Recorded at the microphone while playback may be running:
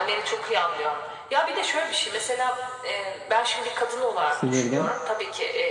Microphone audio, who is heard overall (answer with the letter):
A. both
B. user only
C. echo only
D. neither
A